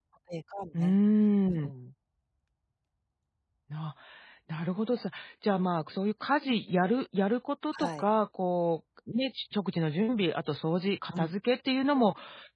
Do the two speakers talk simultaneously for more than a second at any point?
No

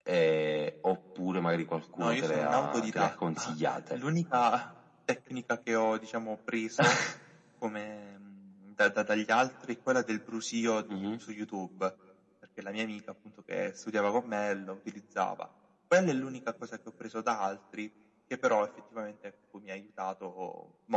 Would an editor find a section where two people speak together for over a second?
Yes, from 2.0 s

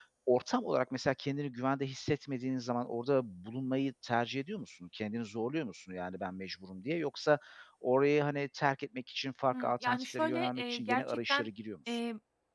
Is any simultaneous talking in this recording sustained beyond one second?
Yes, from 9.5 s

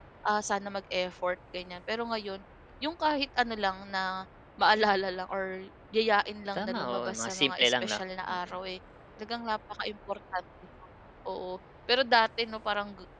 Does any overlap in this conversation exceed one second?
Yes, from 6.5 s

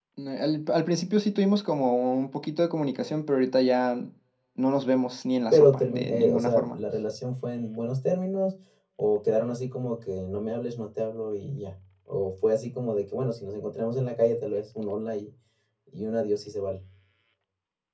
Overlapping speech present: Yes, from 5.5 s

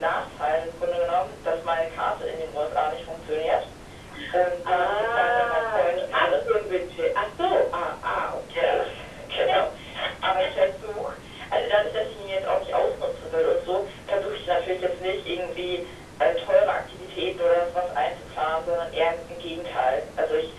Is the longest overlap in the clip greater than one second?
Yes, from 4.7 s

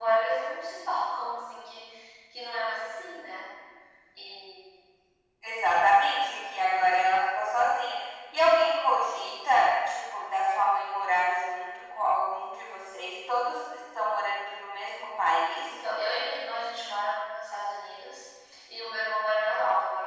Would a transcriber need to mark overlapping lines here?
No

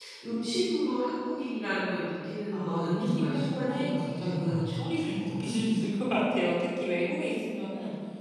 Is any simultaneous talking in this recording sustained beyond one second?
Yes, from 2.5 s

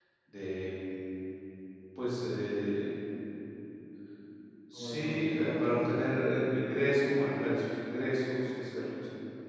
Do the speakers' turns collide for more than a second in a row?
Yes, from 4.8 s

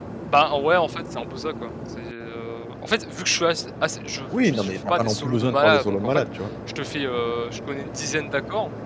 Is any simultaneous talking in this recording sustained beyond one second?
Yes, from 4.3 s

